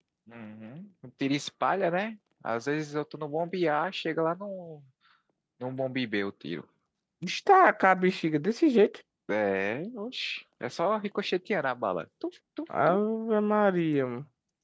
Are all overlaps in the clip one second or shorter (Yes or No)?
Yes